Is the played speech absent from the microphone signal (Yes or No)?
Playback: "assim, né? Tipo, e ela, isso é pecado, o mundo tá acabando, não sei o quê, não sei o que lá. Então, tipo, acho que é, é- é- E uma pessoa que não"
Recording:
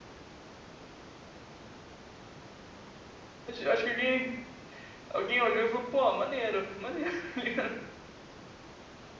Yes